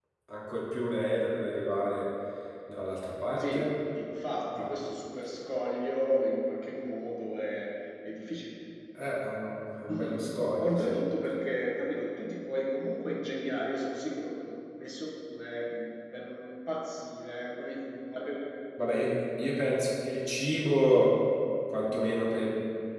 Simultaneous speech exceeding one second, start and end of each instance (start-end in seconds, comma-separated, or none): none